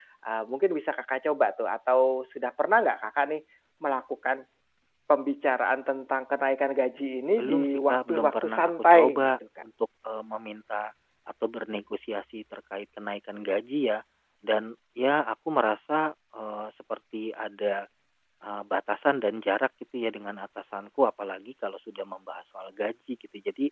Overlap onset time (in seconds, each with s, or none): 7.4 s